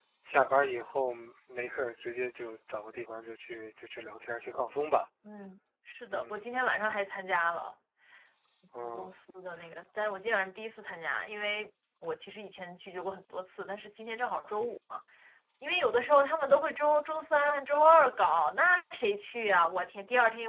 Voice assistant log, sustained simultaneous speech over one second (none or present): none